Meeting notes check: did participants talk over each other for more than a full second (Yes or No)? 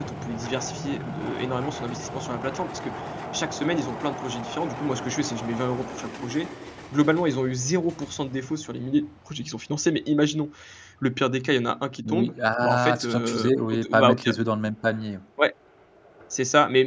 Yes